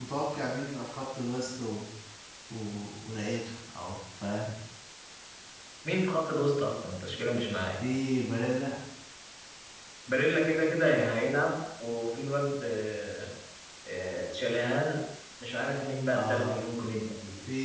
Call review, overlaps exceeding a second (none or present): none